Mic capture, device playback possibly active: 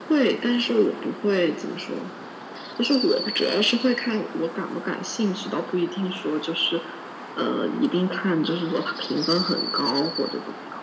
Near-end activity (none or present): none